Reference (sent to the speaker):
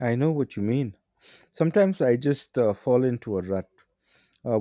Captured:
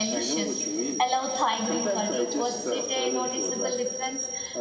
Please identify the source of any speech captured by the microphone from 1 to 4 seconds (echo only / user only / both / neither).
both